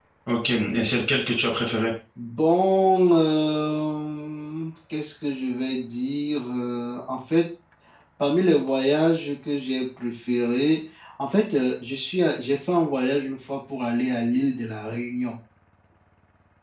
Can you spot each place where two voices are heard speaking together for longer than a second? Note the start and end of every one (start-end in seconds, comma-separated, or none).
none